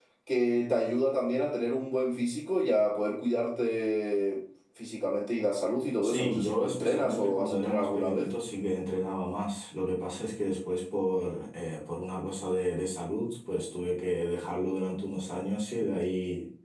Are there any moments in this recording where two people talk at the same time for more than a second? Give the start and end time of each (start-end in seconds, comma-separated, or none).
6.0-8.3